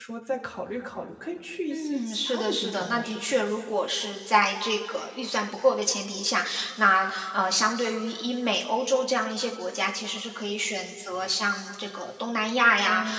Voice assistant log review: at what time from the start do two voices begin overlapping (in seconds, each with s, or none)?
1.7 s